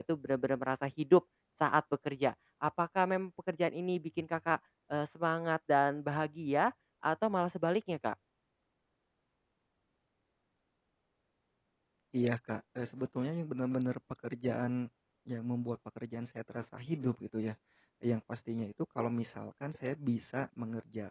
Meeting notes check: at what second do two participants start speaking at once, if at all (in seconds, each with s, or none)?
none